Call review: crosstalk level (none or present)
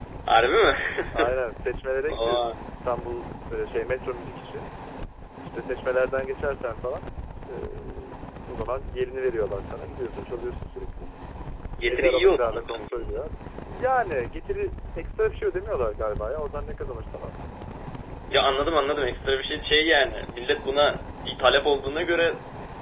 present